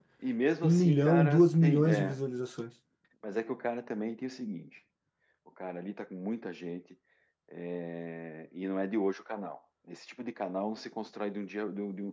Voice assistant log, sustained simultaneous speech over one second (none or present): present